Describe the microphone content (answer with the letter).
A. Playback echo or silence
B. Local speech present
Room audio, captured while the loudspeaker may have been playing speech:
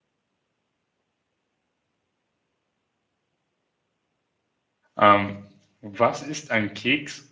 B